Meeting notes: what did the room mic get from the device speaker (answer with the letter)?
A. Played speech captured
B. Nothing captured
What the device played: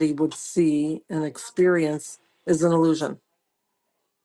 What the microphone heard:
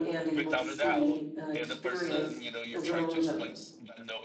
A